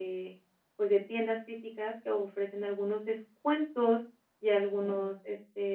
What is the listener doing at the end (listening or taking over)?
listening